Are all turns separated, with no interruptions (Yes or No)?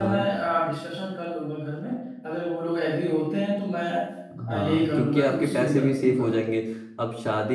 No